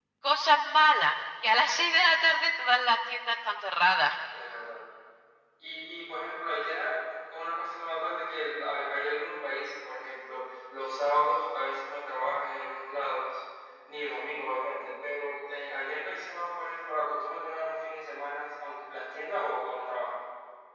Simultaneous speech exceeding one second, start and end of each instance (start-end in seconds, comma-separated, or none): none